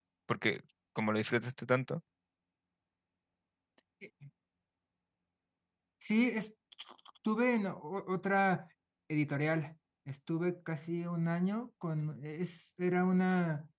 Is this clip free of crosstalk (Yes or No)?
Yes